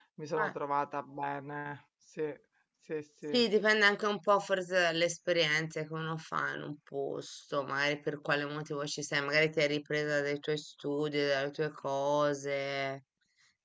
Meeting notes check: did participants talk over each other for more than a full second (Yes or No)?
No